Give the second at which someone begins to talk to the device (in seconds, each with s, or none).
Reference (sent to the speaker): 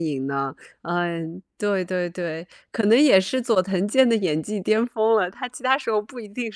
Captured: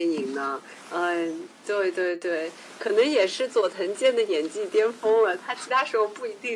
none